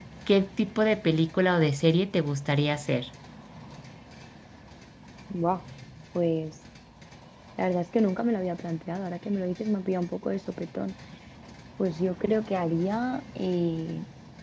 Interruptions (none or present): none